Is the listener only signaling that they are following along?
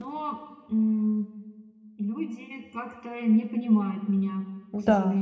No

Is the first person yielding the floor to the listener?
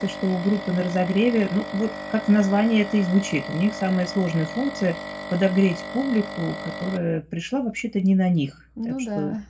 No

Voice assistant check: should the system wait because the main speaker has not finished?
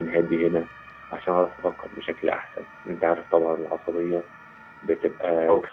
Yes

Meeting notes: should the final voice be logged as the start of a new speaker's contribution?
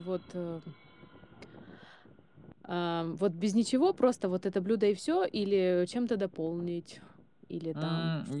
Yes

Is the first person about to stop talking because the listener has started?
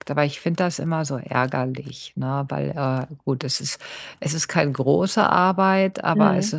No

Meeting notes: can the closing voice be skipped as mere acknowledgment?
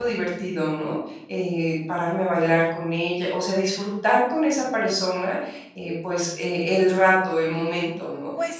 No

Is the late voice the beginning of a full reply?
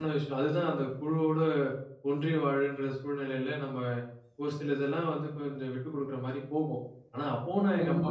No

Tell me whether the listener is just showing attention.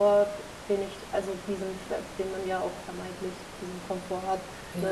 Yes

